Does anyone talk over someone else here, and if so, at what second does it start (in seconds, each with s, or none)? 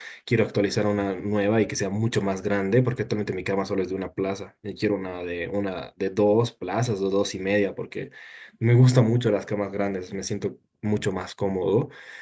none